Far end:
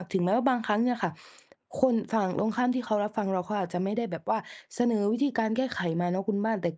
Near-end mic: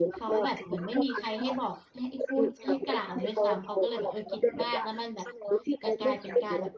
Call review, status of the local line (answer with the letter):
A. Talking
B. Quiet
A